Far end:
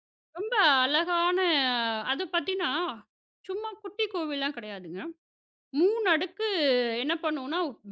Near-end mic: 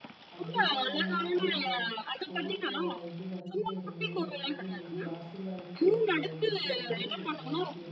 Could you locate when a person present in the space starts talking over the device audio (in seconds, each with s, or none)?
0.3 s